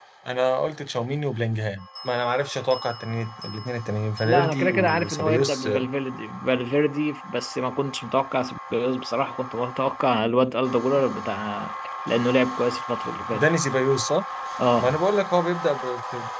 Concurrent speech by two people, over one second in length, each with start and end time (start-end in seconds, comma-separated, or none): 4.2-5.7